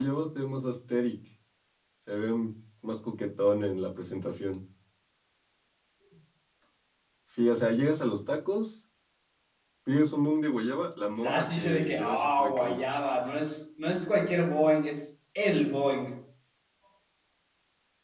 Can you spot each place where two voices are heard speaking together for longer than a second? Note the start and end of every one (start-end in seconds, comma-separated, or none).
11.3-12.8